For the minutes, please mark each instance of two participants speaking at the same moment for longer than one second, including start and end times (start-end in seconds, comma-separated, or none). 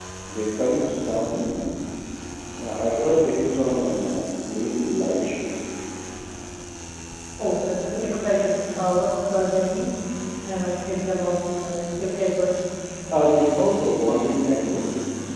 none